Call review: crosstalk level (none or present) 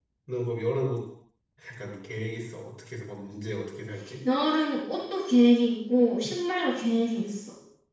none